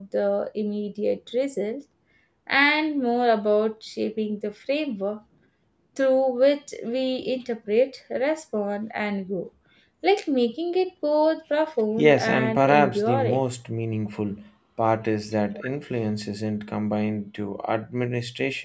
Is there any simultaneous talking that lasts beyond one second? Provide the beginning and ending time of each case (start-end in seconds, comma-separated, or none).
12.0-13.4